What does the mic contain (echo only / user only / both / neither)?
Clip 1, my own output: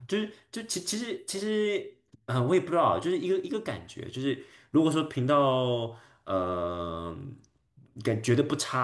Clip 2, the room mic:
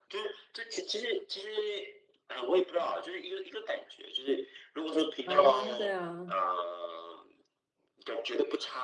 both